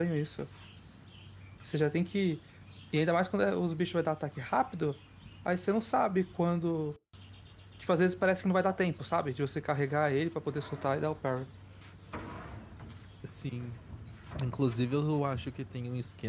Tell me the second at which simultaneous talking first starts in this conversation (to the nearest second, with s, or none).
none